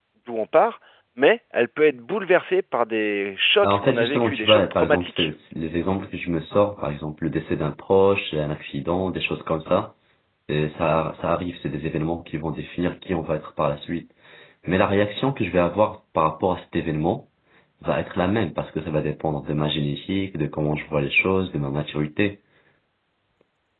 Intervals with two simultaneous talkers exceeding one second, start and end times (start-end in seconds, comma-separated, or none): 3.6-5.3